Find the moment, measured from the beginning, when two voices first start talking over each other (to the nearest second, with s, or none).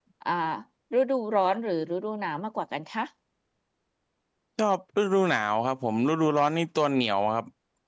none